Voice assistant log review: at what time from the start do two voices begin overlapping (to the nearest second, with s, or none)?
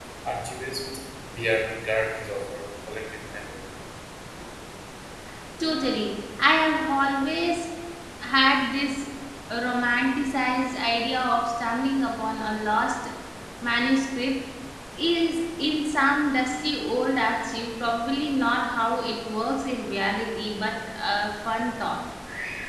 none